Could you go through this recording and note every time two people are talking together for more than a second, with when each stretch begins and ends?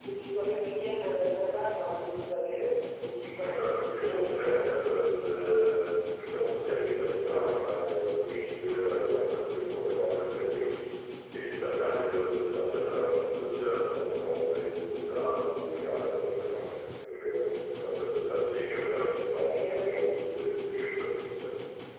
3.4-4.6

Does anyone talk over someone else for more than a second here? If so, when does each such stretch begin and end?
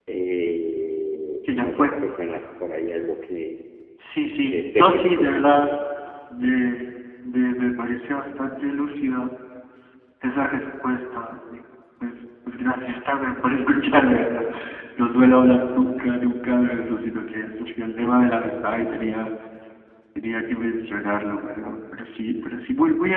4.5-5.7

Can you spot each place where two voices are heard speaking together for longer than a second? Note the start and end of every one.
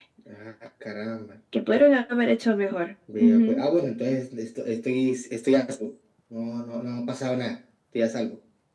none

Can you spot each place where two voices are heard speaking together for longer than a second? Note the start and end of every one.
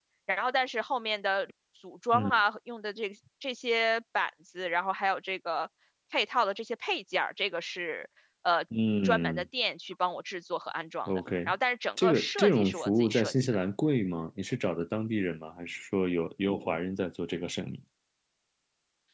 12.0-13.6

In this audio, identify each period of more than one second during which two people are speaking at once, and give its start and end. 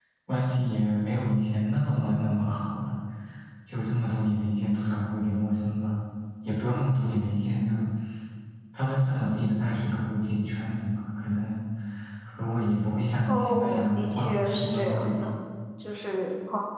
13.3-15.3

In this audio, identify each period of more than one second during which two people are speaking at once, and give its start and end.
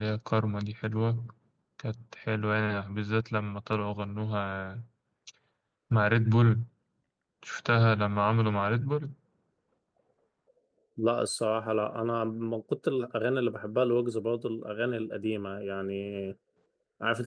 none

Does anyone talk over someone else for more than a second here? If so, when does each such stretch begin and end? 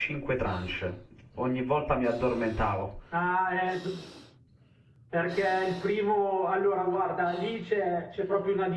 none

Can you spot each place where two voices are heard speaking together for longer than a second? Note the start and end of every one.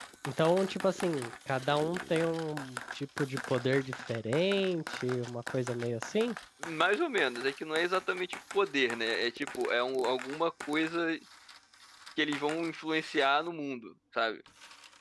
none

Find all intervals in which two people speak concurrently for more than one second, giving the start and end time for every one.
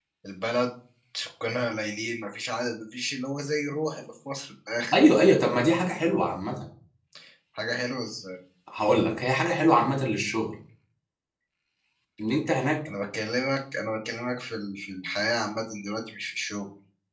none

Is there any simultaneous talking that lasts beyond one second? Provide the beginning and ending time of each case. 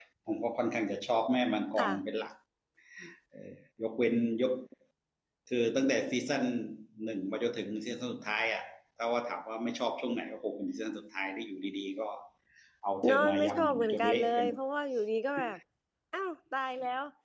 13.1-14.6

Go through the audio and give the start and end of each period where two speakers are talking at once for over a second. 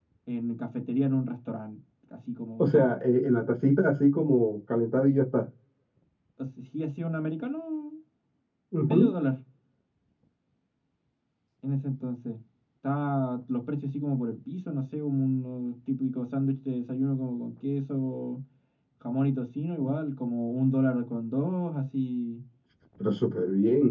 none

